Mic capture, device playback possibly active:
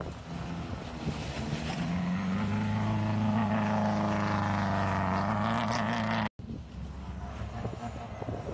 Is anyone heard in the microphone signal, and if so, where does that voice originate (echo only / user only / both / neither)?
neither